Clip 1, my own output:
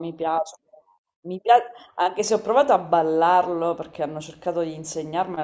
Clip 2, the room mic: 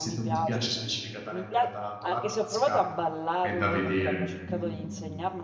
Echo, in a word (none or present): present